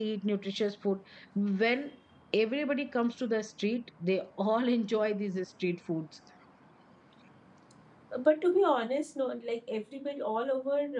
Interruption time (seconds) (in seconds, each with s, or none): none